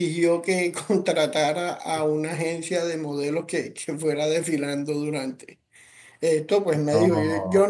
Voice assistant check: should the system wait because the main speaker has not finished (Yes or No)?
Yes